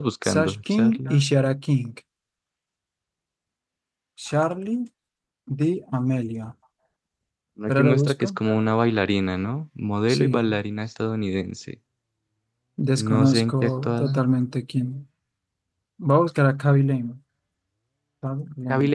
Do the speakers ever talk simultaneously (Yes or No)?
Yes